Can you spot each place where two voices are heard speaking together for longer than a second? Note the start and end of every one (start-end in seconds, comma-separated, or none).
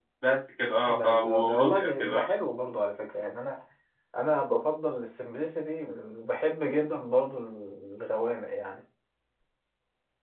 0.8-2.3